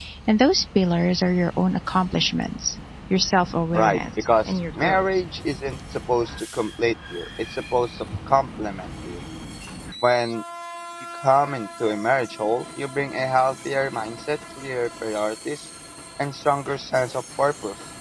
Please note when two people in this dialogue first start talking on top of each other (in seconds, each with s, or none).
3.7 s